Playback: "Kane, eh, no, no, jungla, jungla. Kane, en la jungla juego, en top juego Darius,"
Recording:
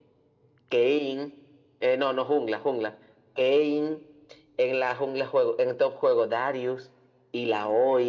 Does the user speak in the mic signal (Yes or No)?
No